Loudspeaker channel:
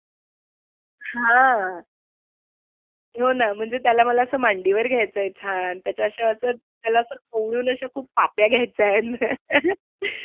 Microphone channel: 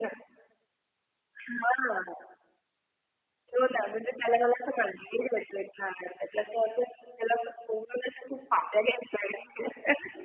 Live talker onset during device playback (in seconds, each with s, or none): none